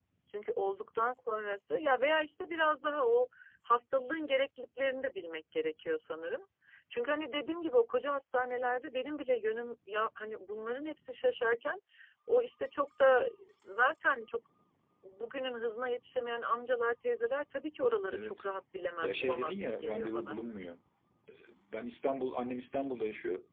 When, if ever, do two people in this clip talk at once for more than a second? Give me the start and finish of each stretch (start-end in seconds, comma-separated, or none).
19.0-20.4